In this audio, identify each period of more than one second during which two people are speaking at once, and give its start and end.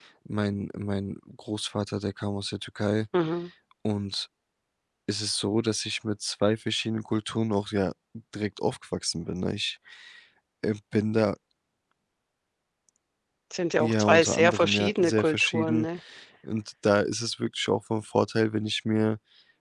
13.8-15.9

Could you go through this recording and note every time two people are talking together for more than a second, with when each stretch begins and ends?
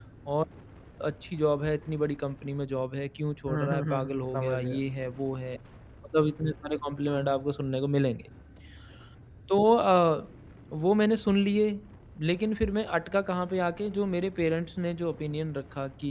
3.5-4.8

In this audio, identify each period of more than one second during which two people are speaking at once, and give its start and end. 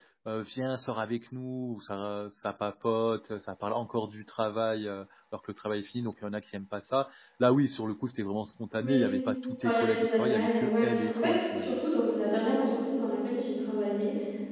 9.6-11.8

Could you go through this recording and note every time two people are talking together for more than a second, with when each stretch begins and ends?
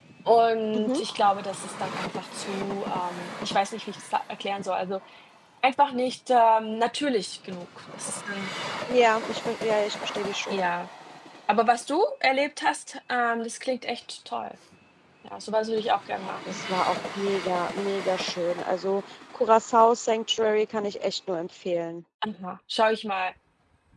none

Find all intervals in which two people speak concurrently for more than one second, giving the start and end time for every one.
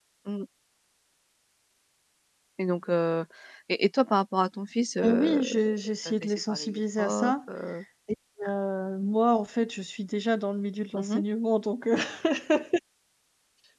5.0-7.5

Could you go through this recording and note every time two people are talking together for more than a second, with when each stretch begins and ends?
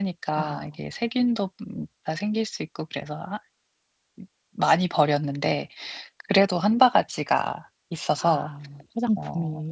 none

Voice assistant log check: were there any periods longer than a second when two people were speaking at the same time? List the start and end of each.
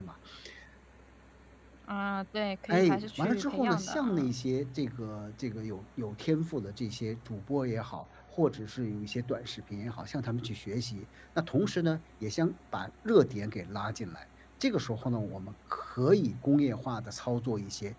2.7-4.3

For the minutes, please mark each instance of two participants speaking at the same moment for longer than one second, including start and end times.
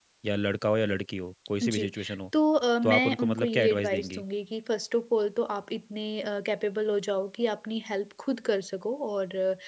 2.8-4.2

